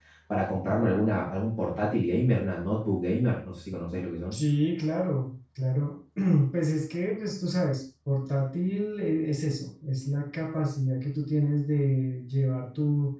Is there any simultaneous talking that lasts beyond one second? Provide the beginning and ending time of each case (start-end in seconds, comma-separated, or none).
none